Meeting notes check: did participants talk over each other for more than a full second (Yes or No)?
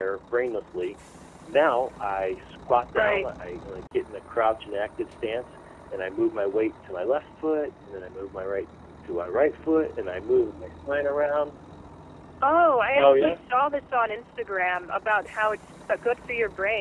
No